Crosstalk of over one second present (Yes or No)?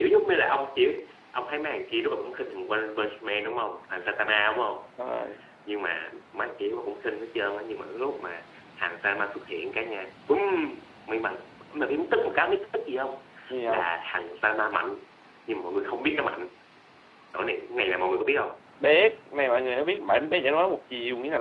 No